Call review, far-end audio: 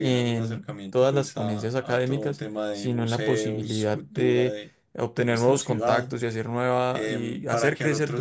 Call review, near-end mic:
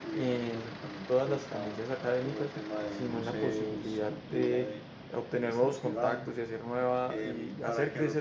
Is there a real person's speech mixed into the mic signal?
No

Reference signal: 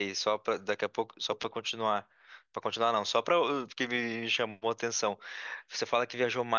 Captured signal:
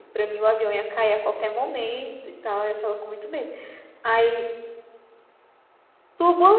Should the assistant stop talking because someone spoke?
Yes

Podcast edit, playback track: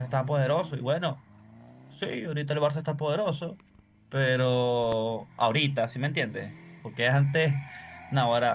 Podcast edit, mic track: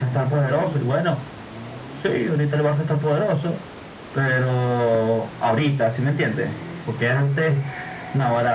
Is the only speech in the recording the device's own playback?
Yes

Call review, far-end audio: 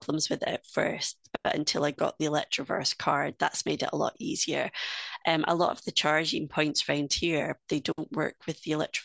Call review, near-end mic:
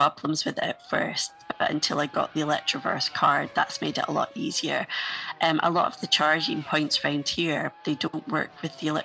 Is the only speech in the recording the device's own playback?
Yes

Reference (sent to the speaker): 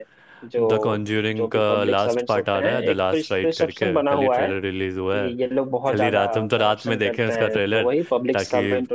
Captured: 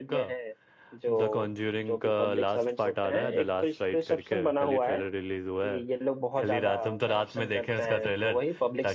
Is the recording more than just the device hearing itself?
No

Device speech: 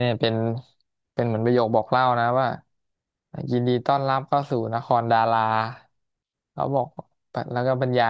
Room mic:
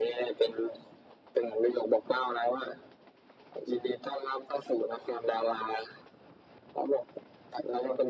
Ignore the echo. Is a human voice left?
No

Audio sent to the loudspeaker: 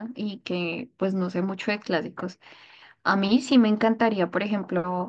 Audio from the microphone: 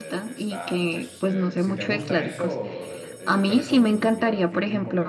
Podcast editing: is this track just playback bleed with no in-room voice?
No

